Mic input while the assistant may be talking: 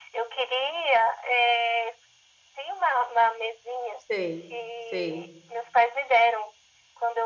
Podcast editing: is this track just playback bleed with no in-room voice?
No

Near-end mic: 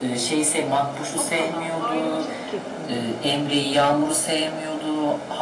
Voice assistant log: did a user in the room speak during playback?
Yes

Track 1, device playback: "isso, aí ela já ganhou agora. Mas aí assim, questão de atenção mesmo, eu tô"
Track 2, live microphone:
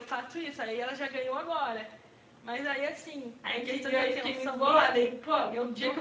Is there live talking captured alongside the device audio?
Yes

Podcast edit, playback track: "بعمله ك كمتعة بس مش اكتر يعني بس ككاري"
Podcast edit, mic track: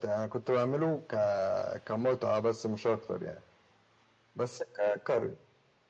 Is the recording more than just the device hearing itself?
No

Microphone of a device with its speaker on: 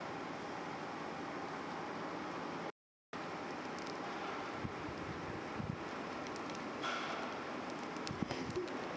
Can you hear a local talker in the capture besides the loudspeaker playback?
No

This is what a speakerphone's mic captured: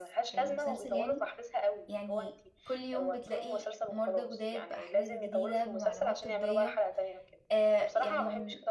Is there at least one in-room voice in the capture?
Yes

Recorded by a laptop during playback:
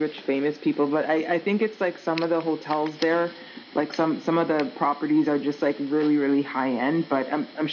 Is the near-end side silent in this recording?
Yes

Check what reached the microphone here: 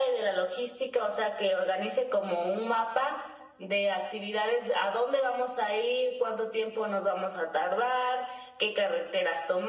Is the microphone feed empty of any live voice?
Yes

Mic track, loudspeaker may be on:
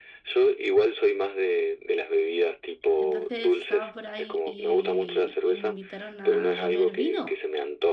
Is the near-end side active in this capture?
Yes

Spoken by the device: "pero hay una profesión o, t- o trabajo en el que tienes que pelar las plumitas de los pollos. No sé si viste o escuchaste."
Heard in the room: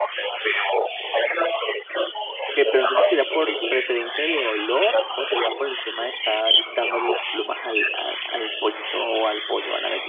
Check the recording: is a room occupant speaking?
Yes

